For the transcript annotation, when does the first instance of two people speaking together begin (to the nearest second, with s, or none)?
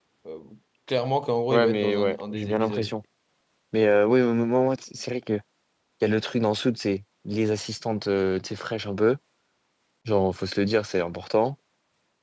2 s